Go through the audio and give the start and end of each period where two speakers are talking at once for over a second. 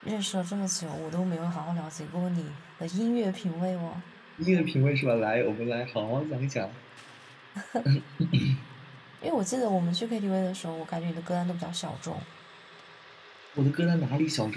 none

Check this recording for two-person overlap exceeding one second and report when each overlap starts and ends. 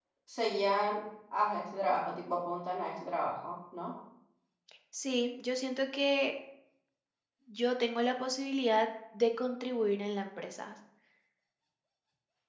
none

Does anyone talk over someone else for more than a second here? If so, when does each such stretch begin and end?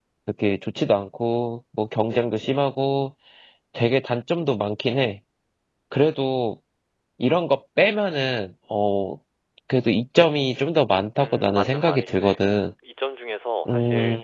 11.2-12.4

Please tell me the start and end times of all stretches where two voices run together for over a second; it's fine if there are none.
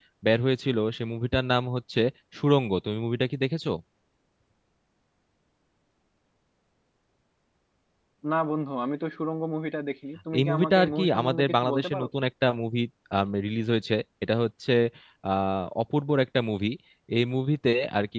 10.4-12.1

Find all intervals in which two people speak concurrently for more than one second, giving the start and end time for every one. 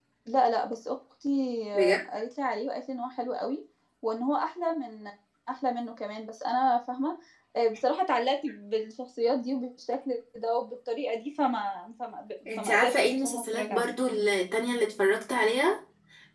12.6-13.9

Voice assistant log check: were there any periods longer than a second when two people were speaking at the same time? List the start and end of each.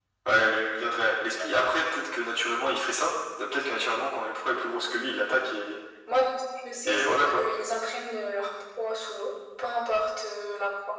none

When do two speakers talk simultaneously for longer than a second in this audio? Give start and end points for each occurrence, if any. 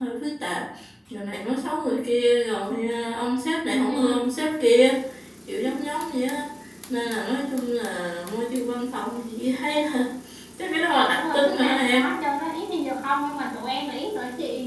10.9-12.1

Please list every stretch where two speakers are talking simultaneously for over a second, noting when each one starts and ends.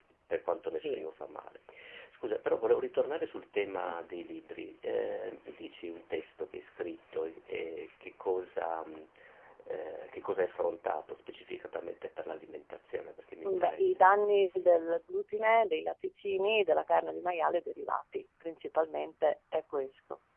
none

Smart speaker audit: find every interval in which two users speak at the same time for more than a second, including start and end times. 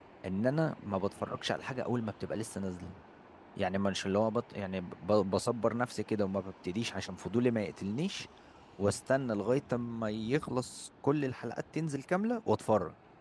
none

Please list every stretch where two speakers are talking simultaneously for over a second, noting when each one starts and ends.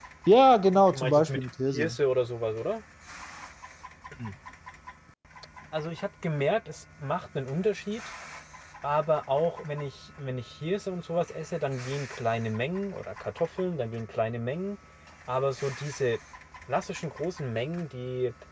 0.7-2.0

